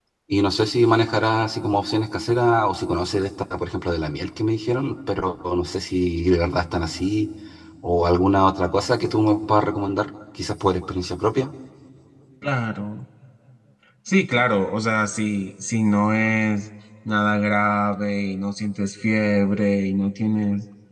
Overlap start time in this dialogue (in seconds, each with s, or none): none